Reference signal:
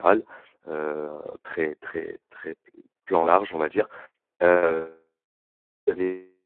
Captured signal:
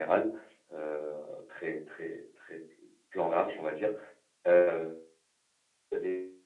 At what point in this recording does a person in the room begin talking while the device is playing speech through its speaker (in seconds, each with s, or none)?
none